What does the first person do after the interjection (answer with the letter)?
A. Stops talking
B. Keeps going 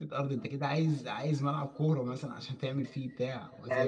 B